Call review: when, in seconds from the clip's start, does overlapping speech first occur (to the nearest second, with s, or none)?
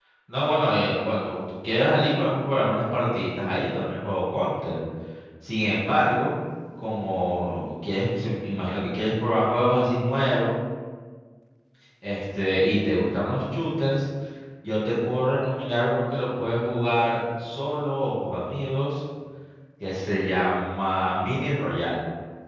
none